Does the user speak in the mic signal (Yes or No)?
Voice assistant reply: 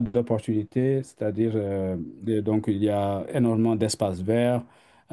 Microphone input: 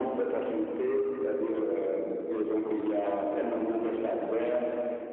No